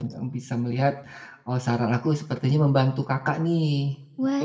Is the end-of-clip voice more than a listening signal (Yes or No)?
Yes